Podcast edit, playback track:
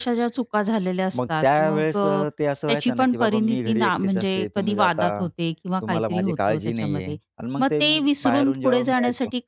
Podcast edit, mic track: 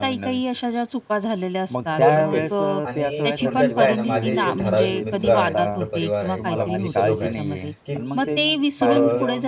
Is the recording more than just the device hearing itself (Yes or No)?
Yes